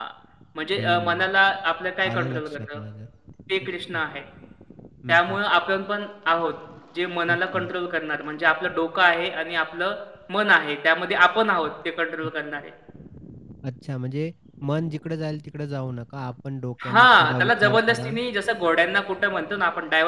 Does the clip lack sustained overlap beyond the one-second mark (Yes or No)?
No